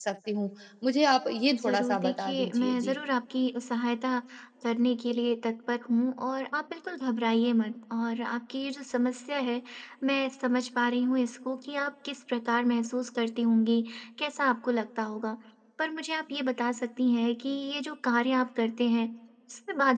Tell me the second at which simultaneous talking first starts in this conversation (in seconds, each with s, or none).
1.5 s